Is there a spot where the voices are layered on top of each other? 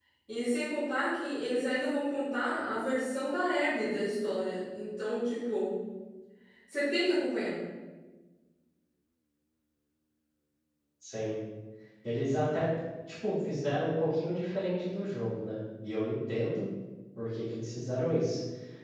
No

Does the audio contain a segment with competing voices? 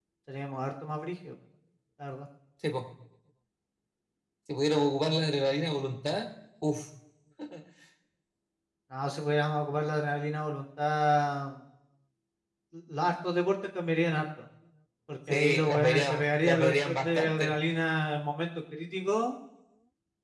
Yes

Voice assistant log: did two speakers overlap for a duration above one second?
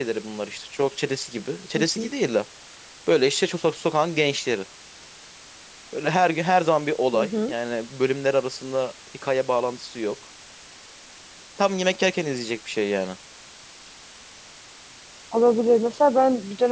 No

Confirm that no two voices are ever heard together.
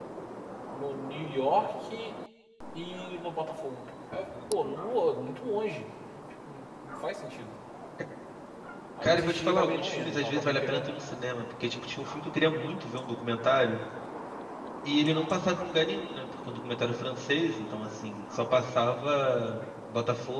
No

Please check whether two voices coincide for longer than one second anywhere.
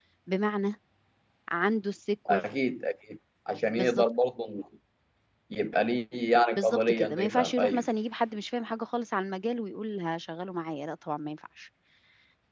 Yes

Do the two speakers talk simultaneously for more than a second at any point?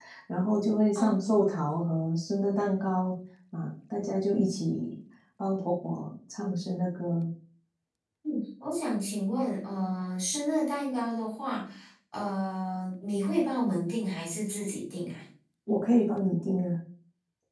No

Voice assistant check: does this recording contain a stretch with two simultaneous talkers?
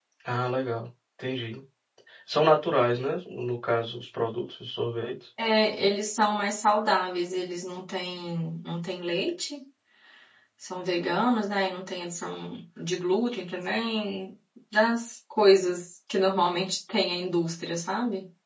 No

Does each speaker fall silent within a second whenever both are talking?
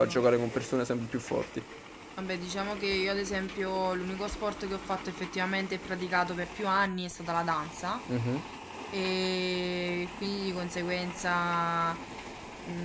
Yes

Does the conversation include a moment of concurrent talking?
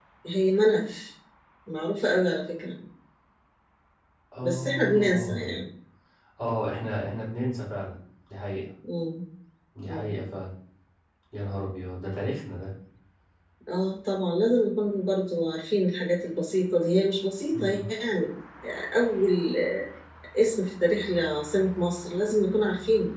Yes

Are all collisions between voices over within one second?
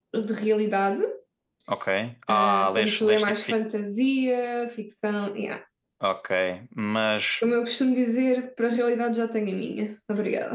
No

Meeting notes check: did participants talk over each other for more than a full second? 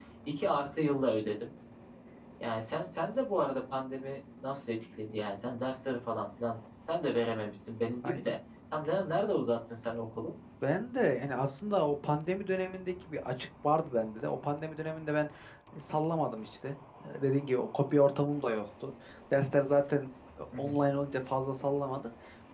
No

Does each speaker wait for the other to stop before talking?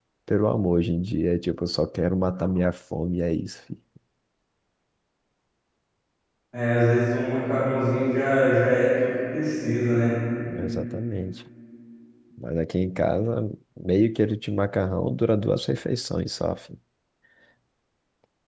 Yes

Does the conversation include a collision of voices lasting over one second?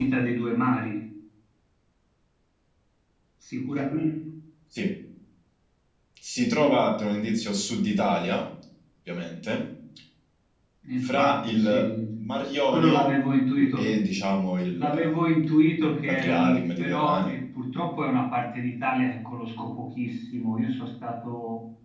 Yes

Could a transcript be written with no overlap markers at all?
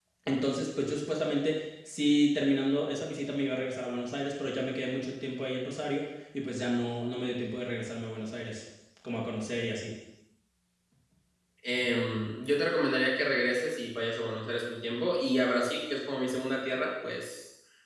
Yes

